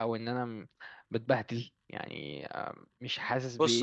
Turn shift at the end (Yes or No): Yes